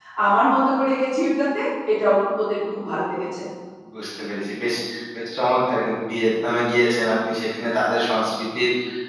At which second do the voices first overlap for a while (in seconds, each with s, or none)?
none